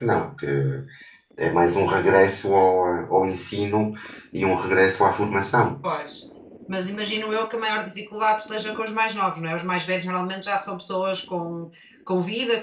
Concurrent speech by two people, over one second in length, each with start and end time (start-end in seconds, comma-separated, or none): none